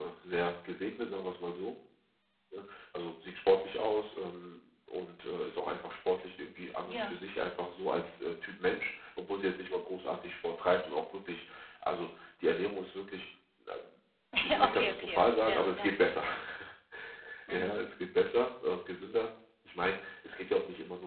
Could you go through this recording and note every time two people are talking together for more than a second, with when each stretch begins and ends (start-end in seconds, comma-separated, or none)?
14.7-15.9